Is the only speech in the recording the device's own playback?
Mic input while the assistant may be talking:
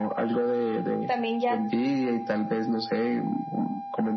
No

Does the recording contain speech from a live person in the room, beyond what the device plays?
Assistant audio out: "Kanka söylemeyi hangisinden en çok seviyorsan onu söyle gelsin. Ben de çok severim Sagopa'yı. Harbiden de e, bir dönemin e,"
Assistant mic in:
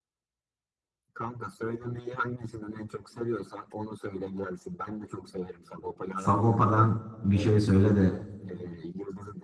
Yes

